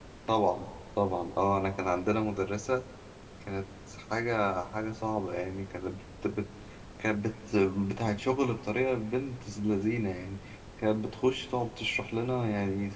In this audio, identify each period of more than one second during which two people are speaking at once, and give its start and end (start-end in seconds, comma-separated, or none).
none